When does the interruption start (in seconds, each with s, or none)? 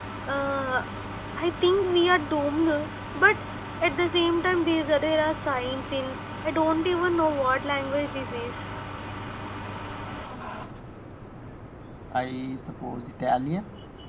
none